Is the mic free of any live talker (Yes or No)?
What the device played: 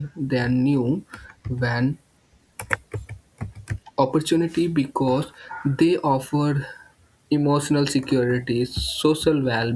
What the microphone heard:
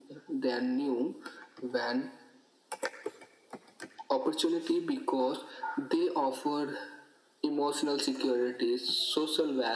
Yes